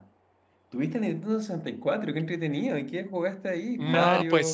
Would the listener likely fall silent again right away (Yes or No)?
No